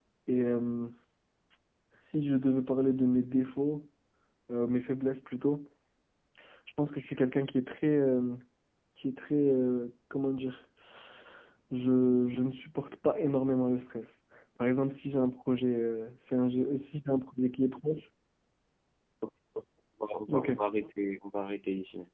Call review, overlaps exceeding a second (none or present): none